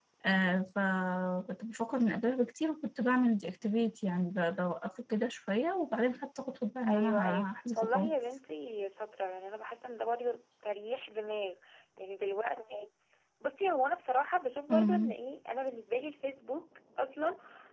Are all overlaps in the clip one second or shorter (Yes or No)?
No